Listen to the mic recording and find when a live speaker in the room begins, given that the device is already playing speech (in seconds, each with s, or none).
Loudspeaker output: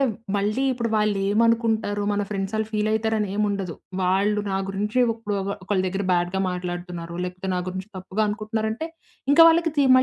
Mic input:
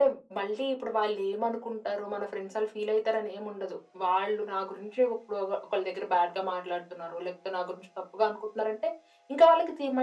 none